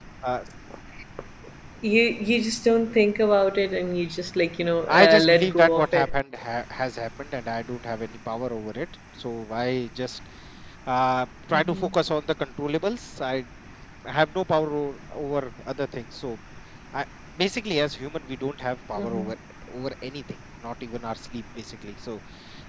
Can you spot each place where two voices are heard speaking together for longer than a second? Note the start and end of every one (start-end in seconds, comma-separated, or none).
4.9-6.1